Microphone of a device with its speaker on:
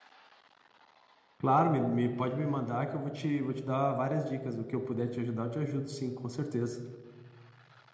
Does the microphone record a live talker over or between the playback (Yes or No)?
Yes